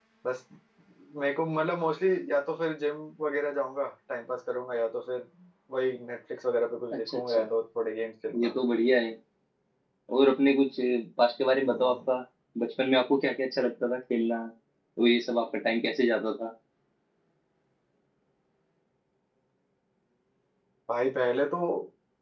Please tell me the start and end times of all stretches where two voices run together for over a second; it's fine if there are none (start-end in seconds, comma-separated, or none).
none